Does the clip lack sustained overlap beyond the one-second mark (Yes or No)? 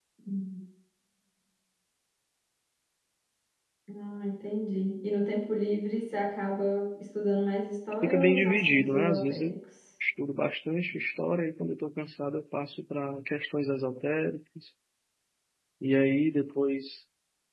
No